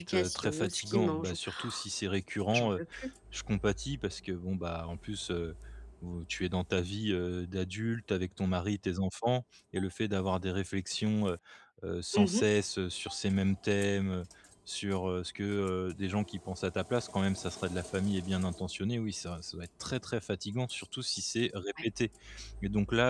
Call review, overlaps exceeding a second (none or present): present